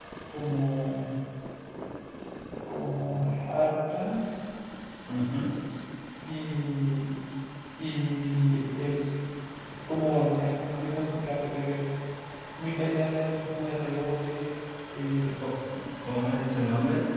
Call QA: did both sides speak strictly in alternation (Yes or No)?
Yes